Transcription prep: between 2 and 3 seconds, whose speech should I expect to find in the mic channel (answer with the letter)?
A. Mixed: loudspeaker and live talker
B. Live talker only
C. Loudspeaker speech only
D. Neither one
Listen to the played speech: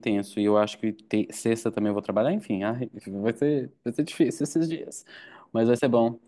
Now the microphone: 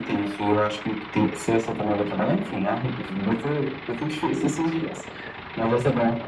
C